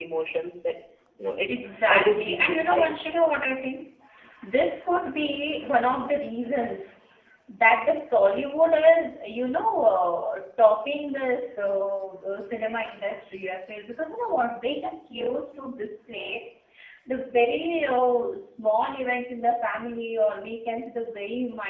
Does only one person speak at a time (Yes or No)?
No